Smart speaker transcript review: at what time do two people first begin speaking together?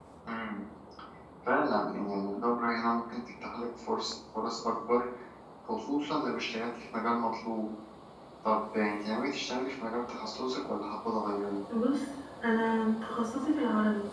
none

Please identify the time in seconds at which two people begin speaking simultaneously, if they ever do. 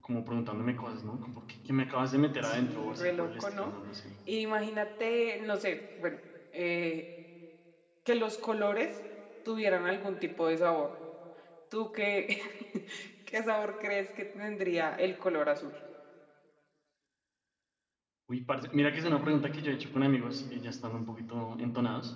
2 s

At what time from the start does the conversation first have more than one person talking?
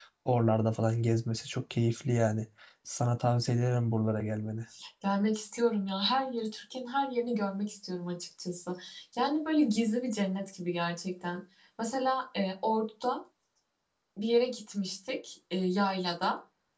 none

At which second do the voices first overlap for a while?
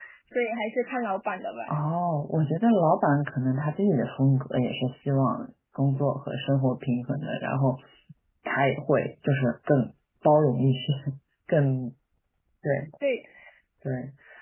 none

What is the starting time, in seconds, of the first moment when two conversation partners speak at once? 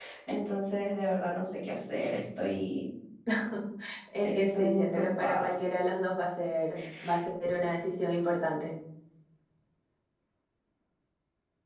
4 s

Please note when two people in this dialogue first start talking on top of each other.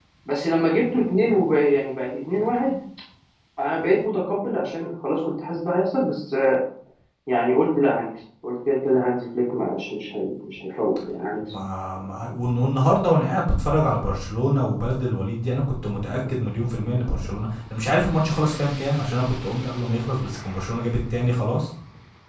none

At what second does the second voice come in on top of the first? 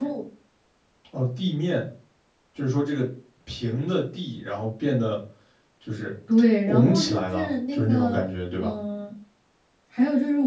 7 s

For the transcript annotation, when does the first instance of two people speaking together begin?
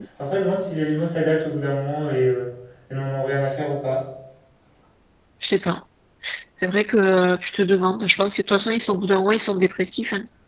none

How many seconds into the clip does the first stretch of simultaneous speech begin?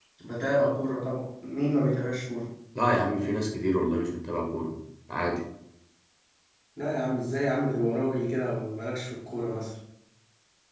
none

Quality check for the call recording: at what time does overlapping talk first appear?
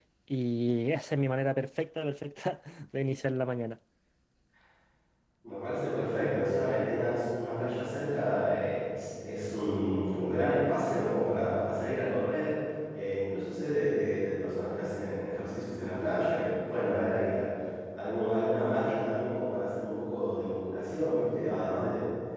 none

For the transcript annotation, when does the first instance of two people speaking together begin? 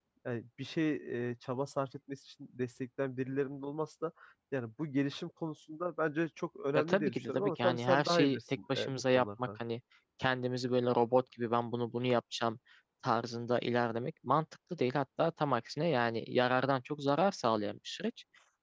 7 s

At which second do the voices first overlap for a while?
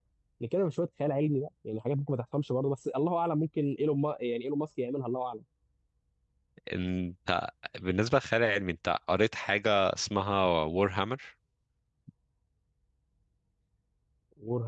none

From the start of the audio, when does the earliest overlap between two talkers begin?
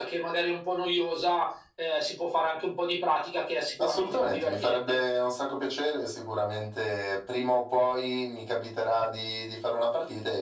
4 s

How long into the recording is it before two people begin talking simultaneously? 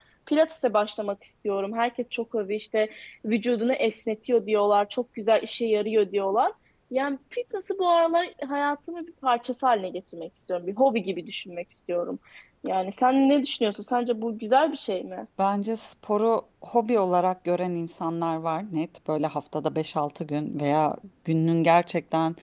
none

